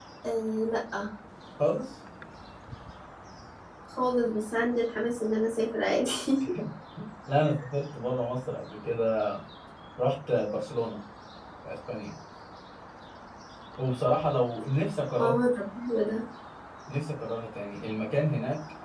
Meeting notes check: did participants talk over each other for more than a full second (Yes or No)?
No